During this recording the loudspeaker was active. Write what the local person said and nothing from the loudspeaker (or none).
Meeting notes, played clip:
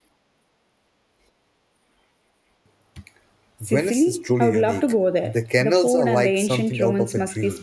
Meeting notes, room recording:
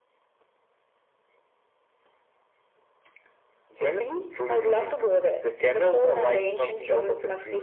none